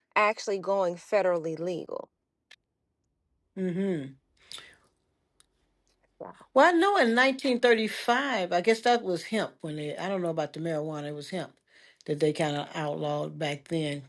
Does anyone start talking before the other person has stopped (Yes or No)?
No